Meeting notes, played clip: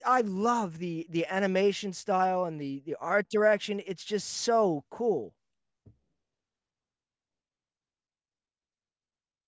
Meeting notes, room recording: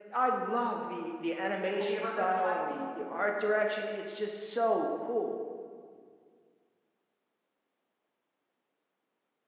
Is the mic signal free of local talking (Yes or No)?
No